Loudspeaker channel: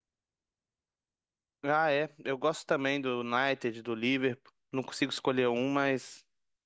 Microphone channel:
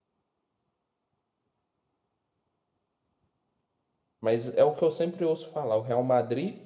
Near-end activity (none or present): present